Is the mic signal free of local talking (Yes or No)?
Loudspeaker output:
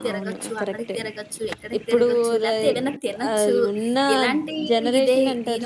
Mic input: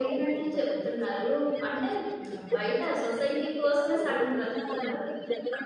No